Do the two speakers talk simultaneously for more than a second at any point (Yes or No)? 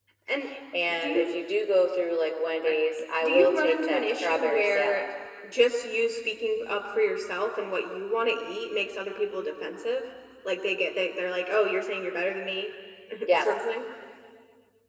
Yes